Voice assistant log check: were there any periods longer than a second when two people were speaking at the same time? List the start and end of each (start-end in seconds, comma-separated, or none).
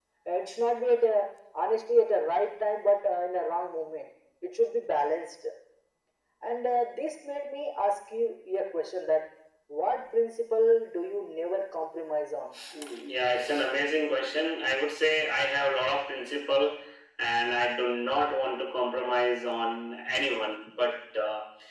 none